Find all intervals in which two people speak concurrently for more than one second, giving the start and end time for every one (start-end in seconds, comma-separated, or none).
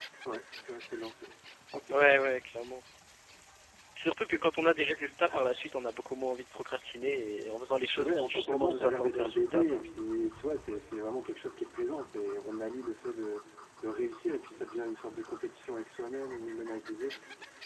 7.9-9.8